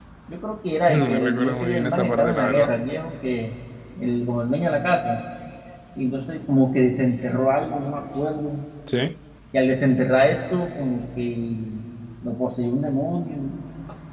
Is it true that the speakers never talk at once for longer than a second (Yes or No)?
No